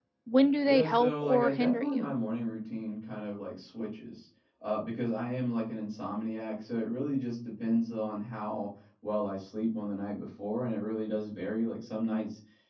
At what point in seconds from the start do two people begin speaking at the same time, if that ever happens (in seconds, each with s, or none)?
0.7 s